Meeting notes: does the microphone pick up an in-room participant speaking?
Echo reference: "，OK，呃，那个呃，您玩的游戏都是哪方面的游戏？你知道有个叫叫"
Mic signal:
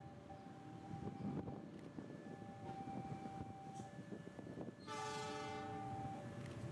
No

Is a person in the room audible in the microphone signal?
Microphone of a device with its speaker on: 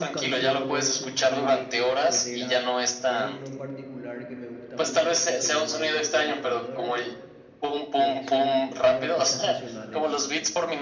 Yes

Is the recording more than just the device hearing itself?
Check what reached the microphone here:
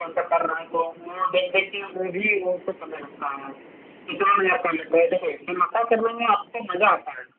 No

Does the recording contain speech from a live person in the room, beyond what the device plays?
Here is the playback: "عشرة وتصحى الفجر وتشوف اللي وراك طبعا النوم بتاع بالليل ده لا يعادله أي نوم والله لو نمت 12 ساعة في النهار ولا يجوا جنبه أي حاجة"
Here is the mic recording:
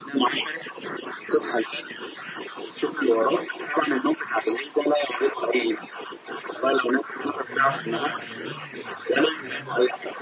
Yes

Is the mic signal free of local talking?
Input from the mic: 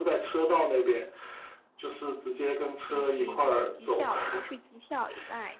No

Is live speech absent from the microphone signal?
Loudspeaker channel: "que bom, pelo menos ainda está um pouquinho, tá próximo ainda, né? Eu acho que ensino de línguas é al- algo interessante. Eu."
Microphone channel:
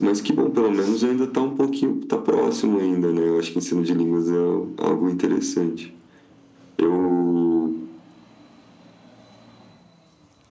Yes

